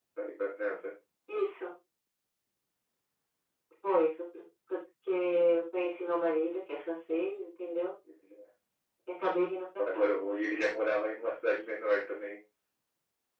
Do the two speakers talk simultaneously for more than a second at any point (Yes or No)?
No